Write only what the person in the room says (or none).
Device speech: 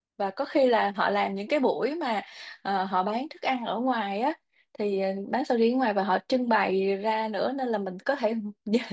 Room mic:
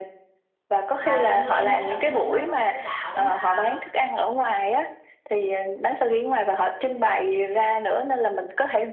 mà hình như em thấy ở bên đấy nó có một cái đảo mà